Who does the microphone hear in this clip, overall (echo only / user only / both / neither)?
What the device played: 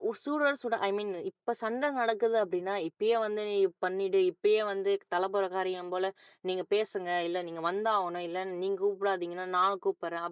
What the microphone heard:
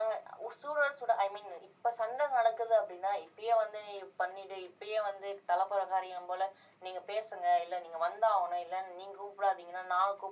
echo only